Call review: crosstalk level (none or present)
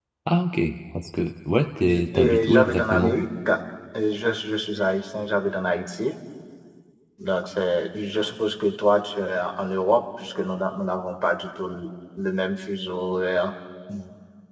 present